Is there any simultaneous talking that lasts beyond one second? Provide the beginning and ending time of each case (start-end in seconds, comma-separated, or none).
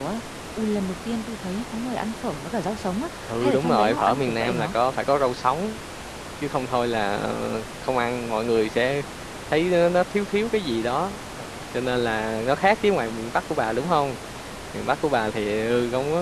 3.3-4.7